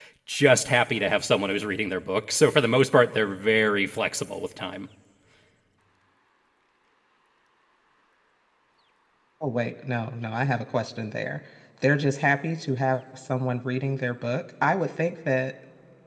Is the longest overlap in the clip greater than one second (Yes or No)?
No